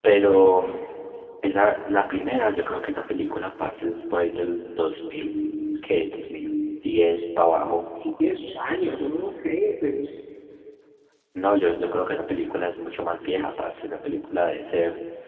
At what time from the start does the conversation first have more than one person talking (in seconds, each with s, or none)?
none